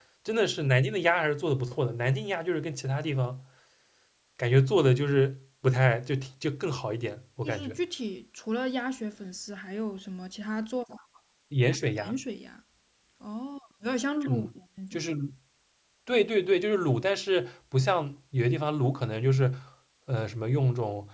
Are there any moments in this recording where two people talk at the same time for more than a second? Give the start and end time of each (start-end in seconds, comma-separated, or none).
none